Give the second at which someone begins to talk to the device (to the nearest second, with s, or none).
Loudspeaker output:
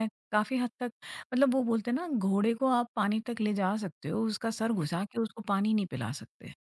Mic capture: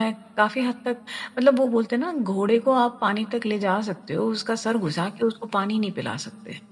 none